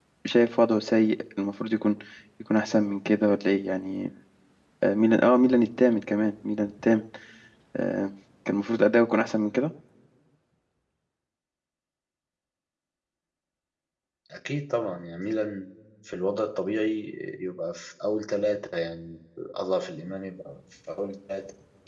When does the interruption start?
none

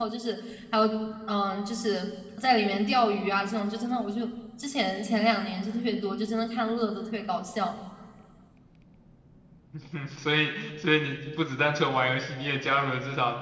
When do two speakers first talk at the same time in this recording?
none

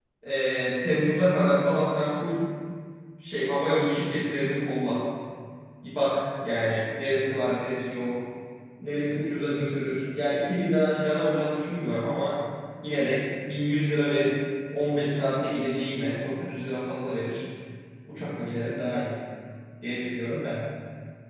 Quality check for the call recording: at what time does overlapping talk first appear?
none

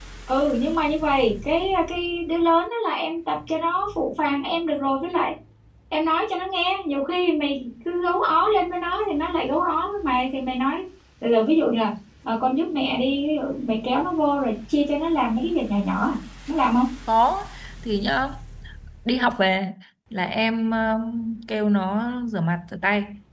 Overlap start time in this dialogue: none

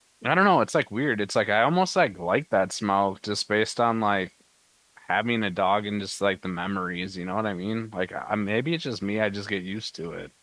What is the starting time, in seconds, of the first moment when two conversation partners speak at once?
none

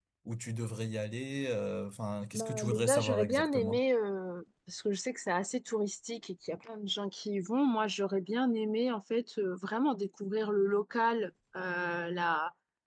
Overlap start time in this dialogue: 2.3 s

